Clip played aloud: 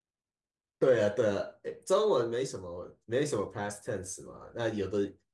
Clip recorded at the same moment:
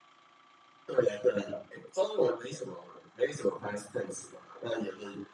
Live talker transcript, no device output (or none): none